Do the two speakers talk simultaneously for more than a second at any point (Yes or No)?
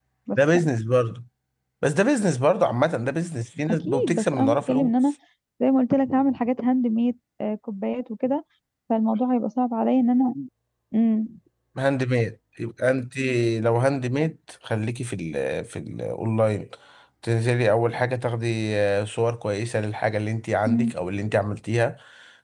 Yes